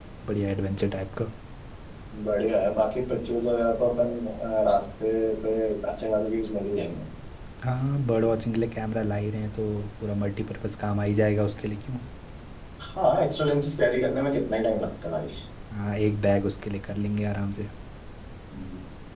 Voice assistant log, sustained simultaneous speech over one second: none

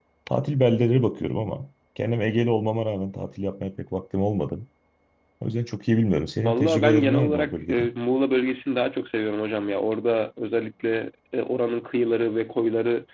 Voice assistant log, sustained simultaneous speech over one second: present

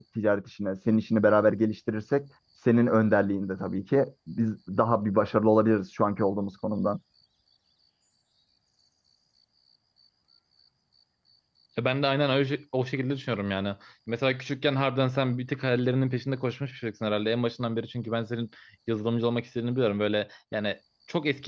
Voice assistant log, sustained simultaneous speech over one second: none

